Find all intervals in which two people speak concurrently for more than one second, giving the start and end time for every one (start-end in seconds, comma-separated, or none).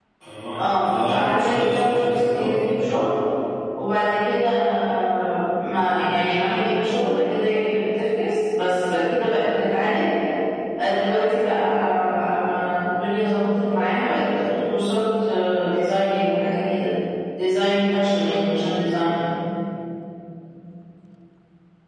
0.6-2.7